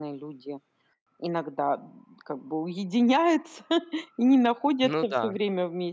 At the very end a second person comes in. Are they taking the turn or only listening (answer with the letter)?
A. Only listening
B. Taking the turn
A